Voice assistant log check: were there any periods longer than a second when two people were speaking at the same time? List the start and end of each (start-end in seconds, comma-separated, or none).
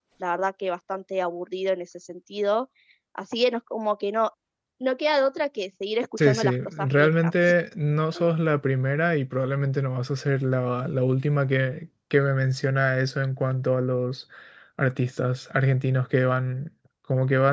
6.2-7.5